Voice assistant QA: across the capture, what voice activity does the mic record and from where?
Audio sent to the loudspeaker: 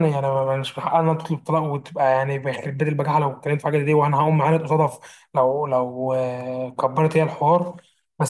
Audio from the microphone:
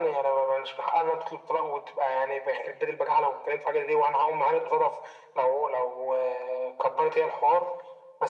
echo only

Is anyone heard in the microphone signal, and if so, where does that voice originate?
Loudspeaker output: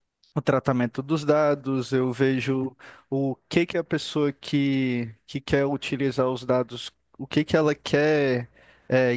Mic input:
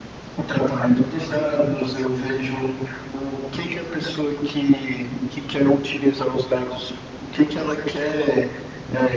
echo only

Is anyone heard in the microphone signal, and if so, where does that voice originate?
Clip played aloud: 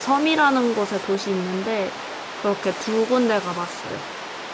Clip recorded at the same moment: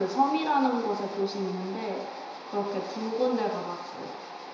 echo only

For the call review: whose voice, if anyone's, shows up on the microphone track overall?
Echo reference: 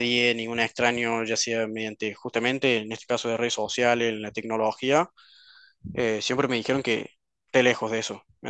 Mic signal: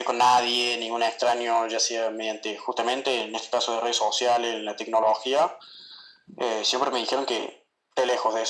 echo only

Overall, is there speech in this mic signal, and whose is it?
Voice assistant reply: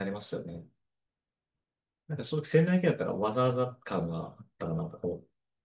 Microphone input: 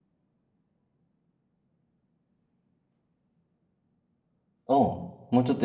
user only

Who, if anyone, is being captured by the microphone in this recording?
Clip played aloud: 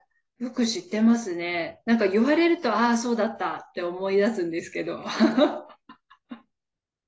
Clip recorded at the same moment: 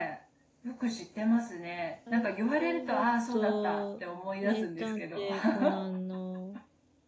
both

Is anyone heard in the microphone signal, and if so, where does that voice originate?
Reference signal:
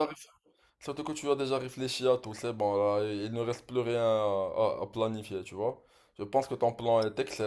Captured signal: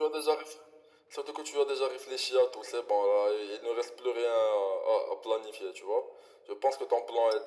echo only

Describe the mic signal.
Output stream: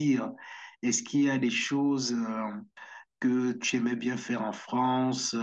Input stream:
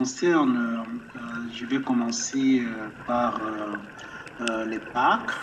user only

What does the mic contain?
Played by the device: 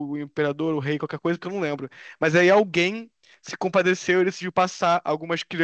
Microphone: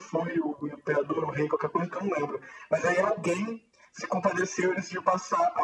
echo only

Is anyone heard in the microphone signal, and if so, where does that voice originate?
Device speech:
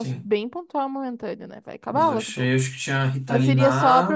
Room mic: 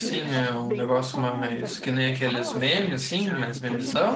both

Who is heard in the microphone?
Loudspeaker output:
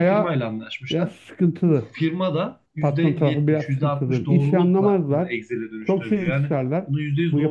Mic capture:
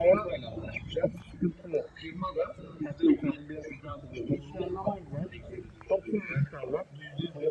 echo only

